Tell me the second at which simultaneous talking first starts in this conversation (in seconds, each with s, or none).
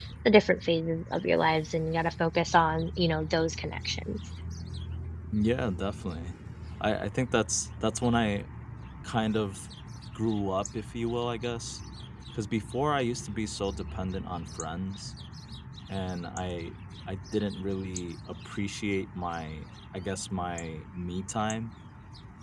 none